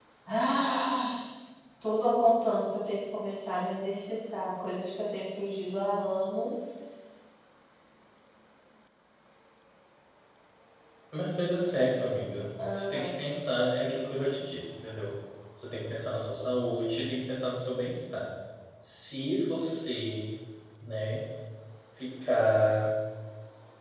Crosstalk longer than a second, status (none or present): none